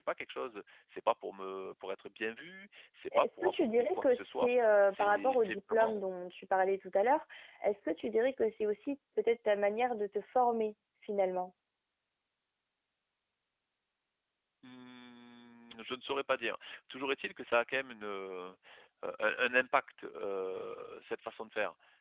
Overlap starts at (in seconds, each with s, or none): 3.1 s